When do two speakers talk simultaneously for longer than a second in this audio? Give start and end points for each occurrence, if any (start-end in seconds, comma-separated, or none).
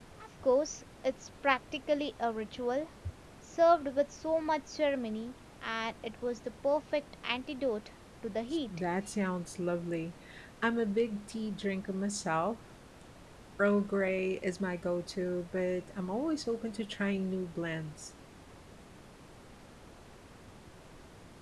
none